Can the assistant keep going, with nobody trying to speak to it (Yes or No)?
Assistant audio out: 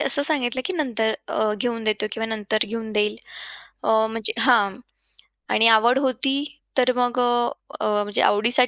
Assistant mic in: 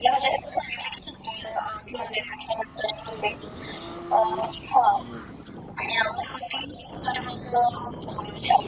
Yes